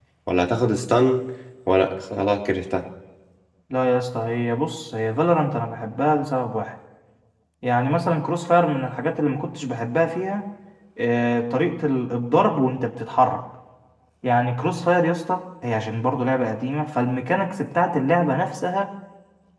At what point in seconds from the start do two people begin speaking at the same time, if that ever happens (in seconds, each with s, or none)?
none